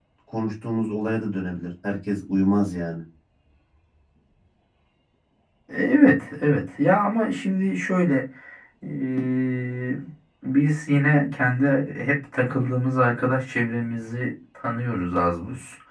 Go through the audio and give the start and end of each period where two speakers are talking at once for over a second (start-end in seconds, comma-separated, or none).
none